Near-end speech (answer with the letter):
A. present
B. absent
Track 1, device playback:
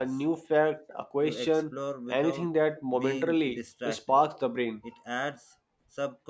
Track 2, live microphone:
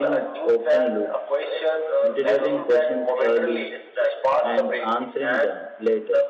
A